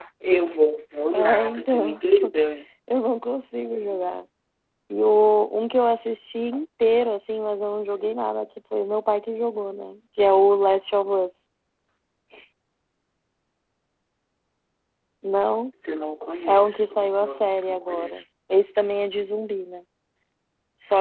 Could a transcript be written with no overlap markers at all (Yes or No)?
No